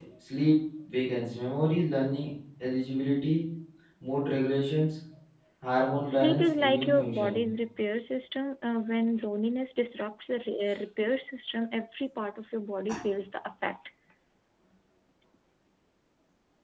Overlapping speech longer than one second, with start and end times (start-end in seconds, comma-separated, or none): 6.0-7.4